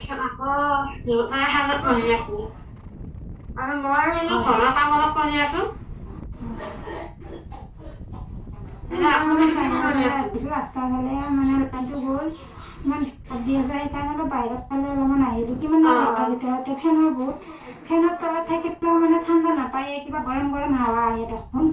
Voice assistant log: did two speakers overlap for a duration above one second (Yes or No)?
Yes